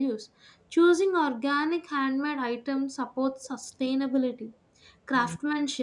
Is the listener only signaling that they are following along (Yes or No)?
Yes